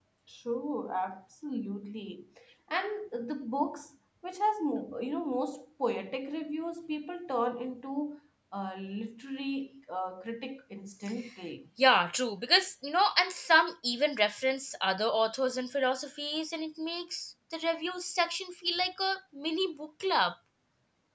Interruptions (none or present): none